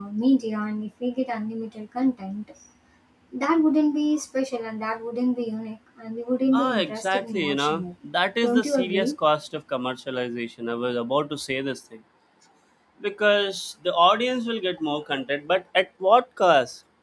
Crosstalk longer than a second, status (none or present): present